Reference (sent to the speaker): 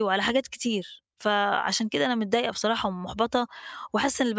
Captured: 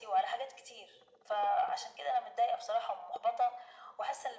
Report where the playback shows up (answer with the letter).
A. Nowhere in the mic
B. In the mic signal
B